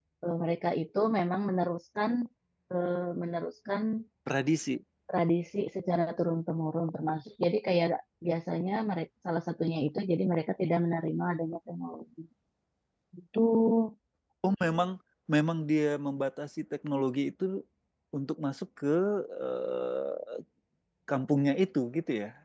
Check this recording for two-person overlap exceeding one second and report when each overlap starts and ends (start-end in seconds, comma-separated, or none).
none